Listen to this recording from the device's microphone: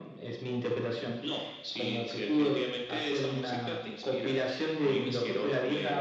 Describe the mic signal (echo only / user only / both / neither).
echo only